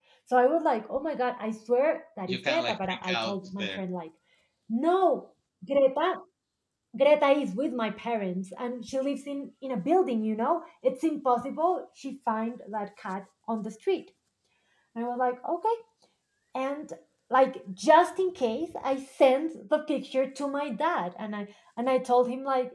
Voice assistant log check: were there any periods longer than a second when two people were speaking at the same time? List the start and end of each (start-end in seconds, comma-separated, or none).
2.3-3.8